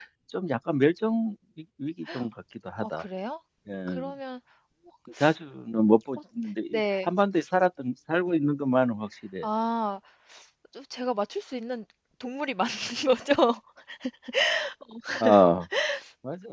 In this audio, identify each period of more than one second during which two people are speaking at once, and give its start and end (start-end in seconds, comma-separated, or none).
none